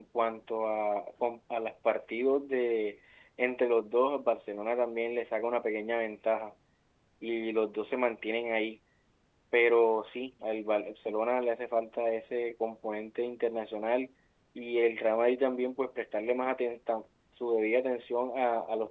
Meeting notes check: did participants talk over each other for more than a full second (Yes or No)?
No